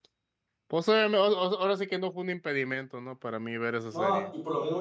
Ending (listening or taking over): taking over